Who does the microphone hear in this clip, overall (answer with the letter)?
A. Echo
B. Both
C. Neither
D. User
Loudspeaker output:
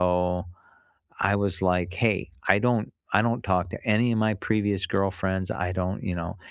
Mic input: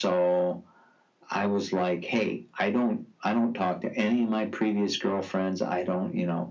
A